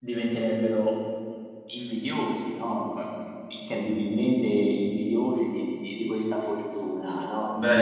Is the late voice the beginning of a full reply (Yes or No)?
No